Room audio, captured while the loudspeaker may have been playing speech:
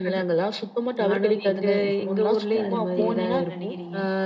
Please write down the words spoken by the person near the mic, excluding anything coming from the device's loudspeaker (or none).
அந்த அத பத்தி நீங்க என்ன நினைக்கிறீங்க?